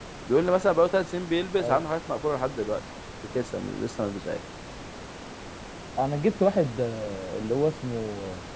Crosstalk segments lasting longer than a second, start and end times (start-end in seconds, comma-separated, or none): none